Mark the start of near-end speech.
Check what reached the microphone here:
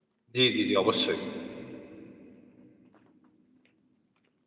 0 s

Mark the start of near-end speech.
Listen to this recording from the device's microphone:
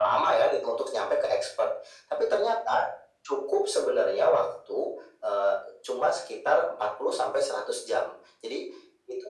none

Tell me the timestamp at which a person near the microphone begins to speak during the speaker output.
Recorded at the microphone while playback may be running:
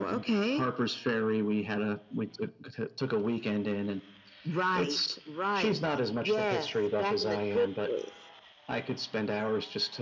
none

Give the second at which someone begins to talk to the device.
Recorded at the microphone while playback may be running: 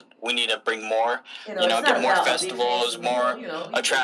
1 s

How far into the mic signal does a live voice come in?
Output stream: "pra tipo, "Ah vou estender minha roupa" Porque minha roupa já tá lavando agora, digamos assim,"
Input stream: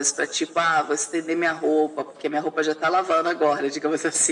none

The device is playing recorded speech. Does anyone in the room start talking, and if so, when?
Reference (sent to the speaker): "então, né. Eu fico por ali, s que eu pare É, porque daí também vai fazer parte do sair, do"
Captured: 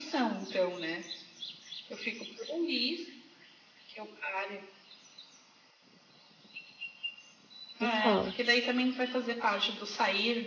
8 s

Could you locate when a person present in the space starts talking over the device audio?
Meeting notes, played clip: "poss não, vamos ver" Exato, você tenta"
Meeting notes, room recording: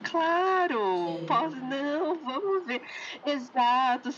1 s

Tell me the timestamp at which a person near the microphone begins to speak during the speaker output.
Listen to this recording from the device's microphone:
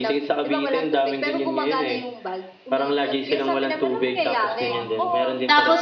4 s

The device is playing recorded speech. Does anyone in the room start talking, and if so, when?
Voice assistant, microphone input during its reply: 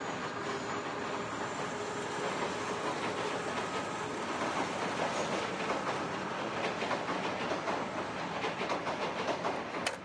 none

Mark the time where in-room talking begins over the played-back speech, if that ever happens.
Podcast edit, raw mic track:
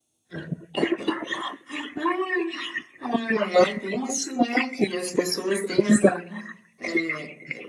none

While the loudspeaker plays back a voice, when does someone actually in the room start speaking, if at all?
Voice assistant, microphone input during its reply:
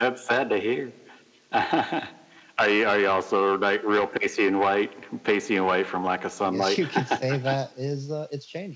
6 s

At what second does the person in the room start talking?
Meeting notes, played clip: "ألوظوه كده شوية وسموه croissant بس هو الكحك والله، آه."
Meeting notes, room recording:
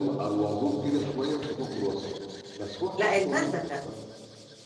3 s

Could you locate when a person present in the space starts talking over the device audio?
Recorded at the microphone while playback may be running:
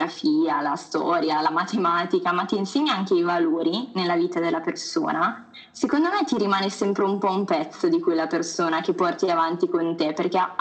none

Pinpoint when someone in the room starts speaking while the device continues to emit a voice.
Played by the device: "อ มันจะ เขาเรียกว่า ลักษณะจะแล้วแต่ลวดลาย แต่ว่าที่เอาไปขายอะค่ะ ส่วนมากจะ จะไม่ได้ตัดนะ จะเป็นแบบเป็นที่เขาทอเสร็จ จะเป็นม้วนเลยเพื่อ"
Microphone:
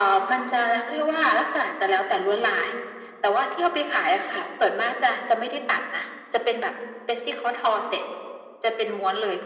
none

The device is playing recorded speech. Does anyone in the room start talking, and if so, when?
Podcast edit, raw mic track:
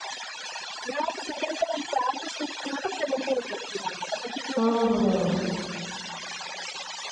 5 s

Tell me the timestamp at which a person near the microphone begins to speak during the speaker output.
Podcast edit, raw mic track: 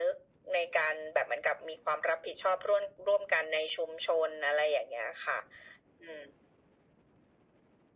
none

